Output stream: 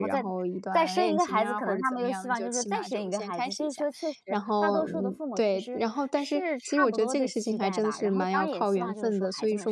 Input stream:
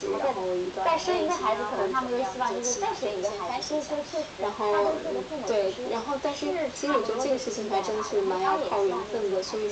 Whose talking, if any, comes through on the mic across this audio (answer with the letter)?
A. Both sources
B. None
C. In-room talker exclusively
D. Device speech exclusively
D